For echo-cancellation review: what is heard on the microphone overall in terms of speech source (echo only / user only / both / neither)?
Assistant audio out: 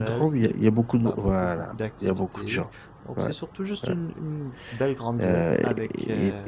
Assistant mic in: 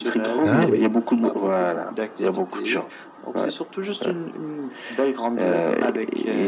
both